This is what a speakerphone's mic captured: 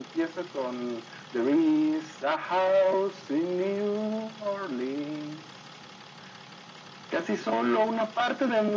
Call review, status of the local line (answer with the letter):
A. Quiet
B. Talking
A